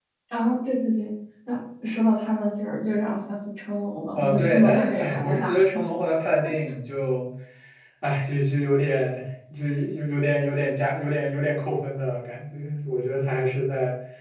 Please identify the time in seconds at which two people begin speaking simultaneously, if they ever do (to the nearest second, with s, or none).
4 s